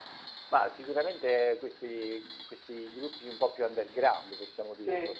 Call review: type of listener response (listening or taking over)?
listening